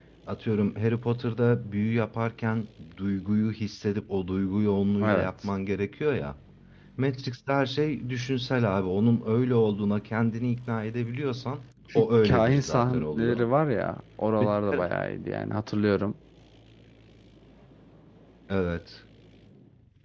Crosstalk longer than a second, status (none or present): present